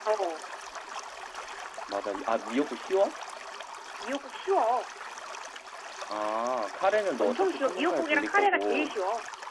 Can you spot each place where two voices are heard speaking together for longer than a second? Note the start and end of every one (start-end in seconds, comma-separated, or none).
7.2-8.9